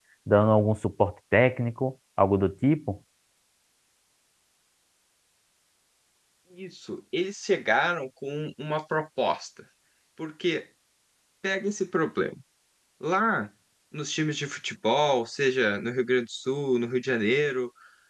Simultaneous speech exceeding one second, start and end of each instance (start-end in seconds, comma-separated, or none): none